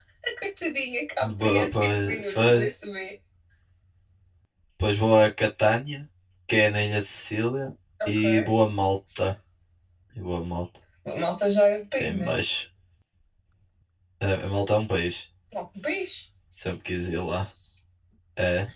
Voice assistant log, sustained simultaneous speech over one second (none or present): present